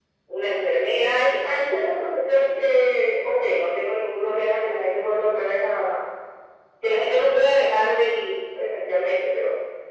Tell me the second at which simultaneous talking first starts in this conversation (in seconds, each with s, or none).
none